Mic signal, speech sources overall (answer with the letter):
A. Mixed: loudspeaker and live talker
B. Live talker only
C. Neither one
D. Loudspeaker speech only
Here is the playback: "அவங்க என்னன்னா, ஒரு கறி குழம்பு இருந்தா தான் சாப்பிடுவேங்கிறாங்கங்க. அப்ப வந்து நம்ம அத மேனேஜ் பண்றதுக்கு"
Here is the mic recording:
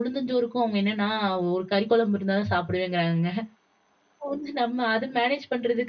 D